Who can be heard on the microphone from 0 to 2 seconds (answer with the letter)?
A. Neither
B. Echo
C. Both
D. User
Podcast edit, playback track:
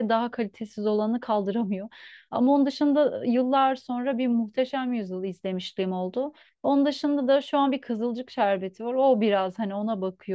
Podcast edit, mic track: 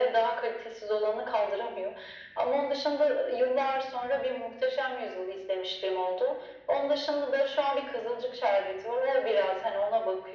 B